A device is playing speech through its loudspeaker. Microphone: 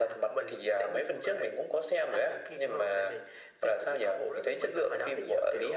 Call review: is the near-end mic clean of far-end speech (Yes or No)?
No